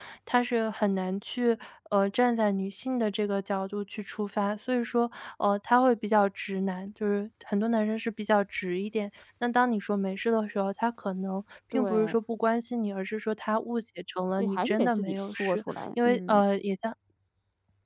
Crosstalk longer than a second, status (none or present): present